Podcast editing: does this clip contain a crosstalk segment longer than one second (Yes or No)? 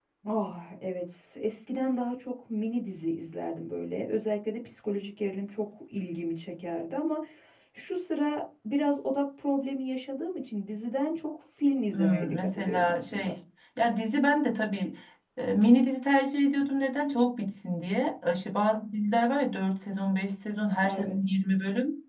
Yes